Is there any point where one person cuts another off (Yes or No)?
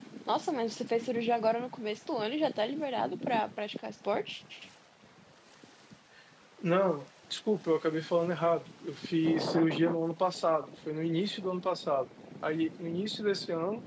No